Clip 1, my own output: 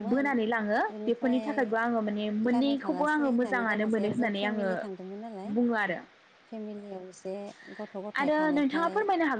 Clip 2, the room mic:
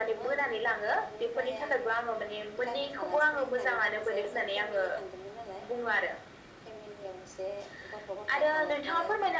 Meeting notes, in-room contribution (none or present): none